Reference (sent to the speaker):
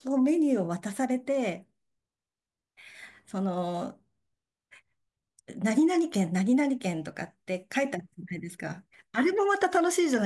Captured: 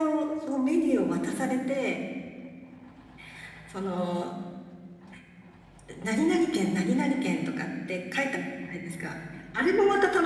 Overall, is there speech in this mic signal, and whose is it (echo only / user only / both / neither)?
echo only